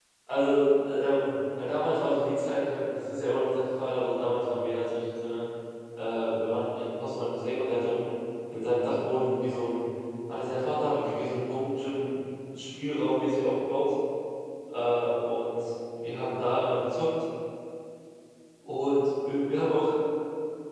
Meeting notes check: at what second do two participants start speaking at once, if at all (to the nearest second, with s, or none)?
none